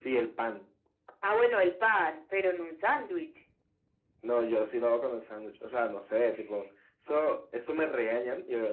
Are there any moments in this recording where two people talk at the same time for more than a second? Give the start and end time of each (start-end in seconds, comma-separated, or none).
none